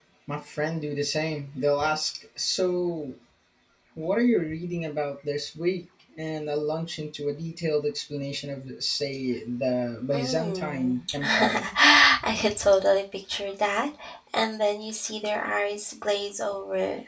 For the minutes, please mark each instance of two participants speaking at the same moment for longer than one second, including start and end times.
10.1-11.7

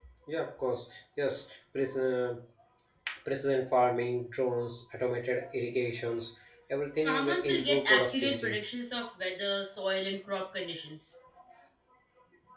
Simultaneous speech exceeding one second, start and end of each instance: 7.0-8.6

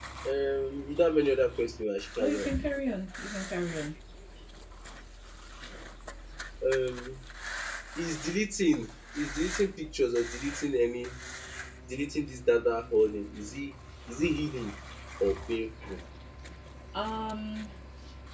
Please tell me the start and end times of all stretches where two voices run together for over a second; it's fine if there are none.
none

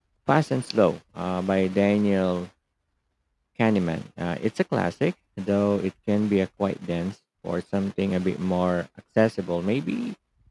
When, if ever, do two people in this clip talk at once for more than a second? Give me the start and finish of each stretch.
none

